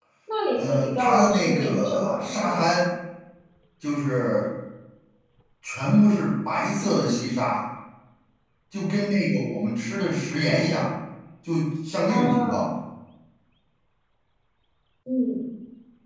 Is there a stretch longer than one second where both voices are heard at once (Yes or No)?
Yes